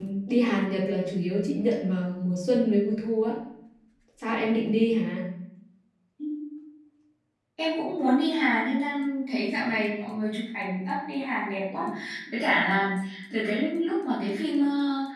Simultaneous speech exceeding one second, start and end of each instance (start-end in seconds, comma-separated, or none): none